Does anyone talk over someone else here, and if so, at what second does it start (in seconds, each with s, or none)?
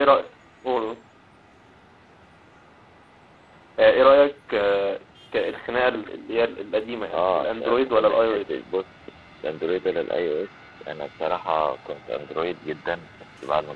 7.1 s